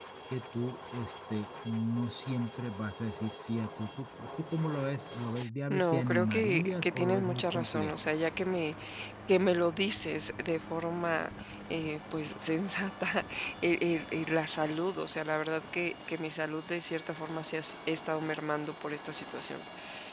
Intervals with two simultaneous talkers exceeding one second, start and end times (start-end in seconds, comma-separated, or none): 5.7-8.1